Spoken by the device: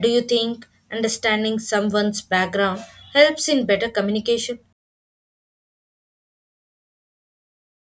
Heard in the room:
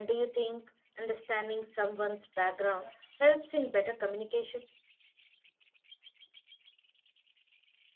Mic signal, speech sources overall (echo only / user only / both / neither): echo only